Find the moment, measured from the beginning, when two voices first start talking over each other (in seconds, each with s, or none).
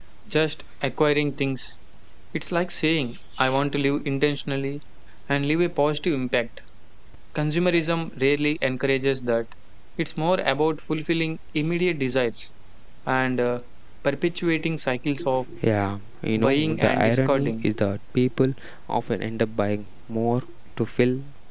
16.4 s